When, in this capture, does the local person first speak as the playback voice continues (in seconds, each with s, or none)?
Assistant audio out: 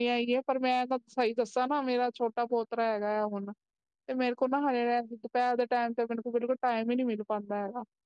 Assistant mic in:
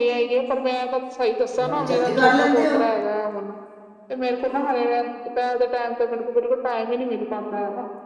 1.6 s